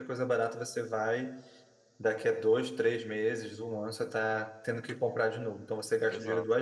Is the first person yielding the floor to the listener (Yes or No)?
No